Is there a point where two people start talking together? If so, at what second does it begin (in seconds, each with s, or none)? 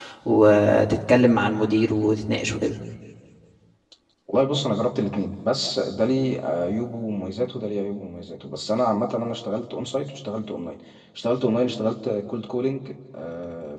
none